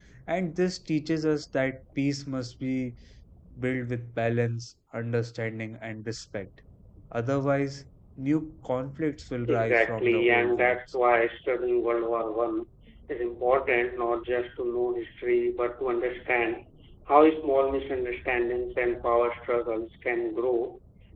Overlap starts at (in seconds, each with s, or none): 9.5 s